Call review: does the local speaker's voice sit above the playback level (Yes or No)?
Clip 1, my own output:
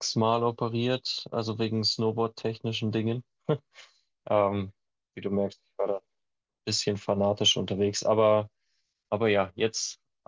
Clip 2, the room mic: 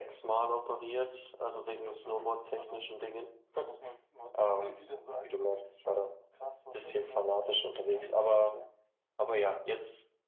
No